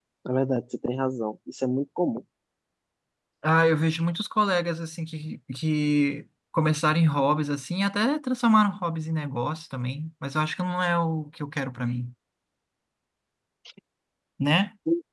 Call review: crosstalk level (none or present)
none